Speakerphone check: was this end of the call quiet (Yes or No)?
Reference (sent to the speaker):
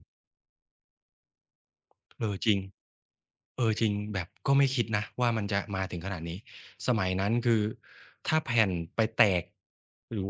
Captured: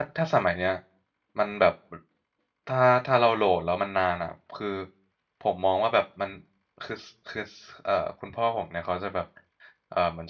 No